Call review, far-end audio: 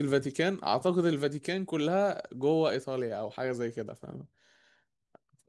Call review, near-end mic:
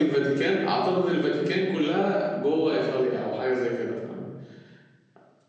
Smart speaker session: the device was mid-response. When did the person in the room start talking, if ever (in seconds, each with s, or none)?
none